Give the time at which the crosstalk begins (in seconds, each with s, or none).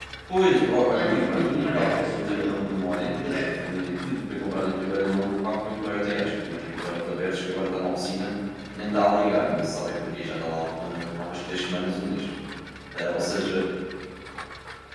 0.5 s